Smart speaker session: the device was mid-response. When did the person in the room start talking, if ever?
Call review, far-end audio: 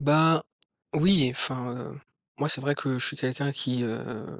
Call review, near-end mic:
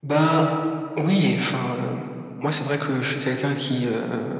none

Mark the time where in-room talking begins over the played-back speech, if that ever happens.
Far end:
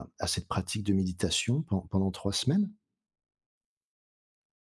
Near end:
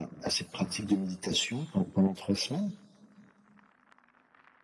none

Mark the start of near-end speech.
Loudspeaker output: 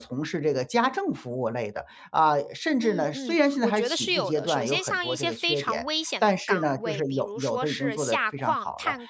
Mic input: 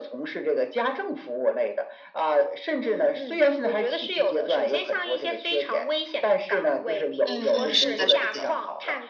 7.2 s

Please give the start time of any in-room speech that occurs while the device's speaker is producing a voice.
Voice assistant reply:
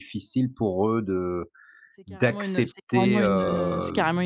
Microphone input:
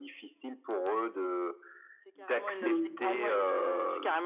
2.6 s

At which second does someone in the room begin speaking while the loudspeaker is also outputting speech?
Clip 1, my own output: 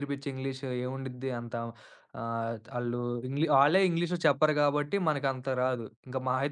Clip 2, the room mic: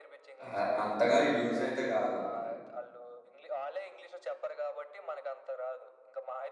0.4 s

